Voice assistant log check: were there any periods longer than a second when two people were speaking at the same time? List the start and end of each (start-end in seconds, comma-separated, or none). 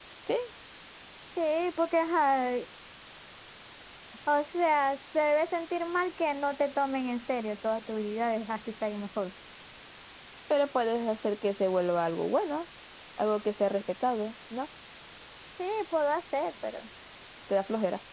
none